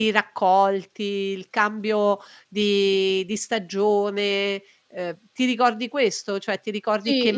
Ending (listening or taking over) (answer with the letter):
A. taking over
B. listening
A